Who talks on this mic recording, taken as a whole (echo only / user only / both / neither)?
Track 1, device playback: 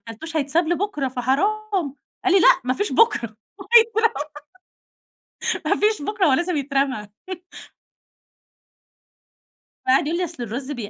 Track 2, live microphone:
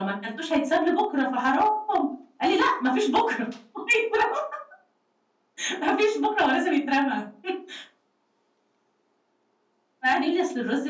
echo only